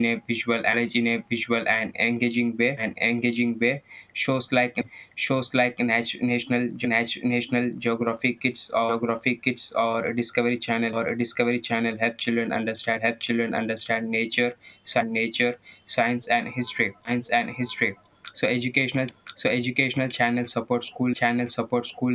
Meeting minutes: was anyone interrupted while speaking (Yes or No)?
No